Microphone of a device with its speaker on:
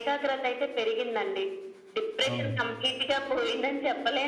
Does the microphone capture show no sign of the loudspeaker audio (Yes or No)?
No